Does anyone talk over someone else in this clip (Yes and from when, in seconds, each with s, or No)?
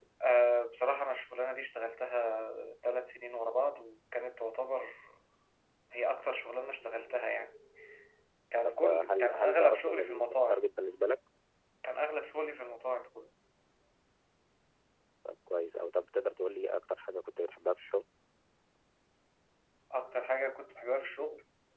Yes, from 8.7 s